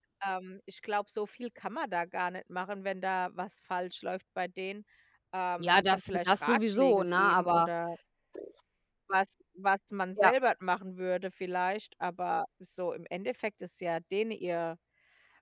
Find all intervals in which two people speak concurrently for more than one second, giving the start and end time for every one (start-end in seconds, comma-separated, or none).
5.6-7.7